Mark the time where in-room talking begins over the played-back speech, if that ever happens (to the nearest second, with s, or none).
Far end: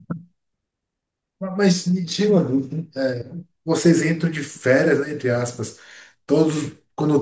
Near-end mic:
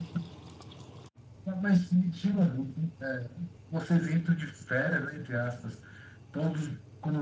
none